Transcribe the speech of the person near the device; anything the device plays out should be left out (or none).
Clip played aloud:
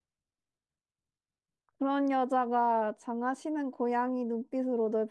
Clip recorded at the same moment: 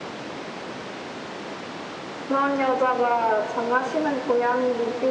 none